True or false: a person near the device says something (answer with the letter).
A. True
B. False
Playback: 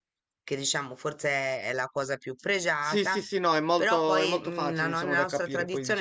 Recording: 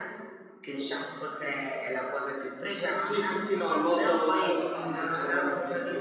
B